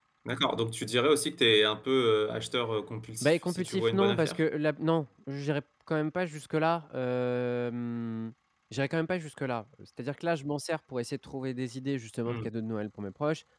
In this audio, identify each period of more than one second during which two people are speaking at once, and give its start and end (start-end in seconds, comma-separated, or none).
3.2-4.4